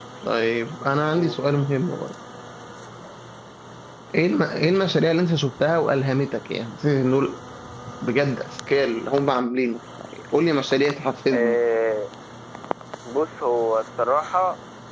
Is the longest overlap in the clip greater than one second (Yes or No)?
No